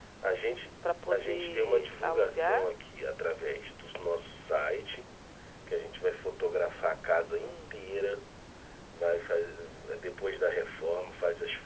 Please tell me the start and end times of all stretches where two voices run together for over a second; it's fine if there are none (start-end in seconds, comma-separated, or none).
1.1-2.7